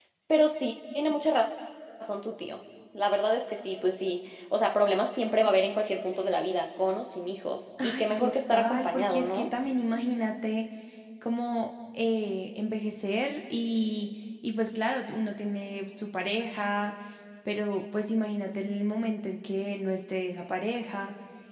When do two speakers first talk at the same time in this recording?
7.8 s

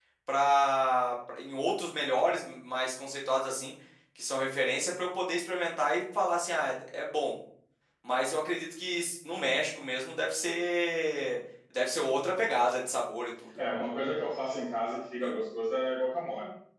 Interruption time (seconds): none

